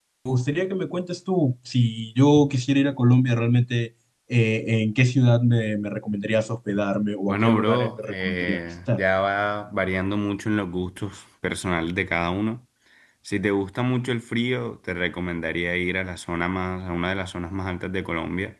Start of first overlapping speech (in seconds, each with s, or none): 7.3 s